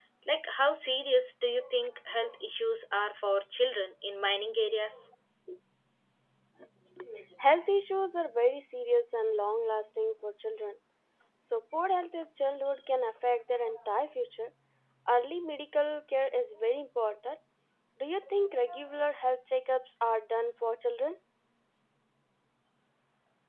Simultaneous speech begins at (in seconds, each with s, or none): none